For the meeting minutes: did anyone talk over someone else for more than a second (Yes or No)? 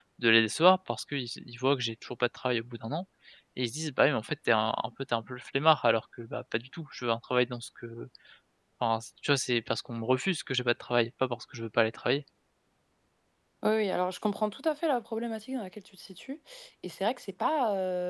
No